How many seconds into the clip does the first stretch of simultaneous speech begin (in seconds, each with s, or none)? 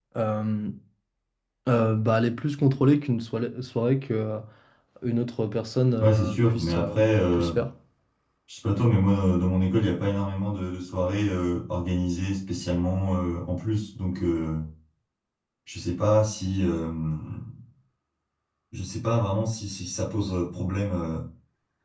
6.0 s